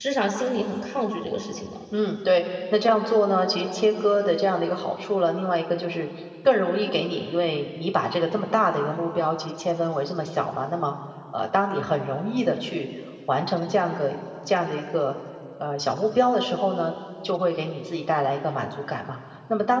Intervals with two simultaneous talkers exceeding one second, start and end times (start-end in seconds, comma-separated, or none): none